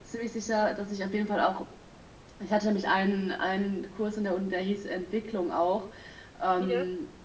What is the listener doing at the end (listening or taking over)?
listening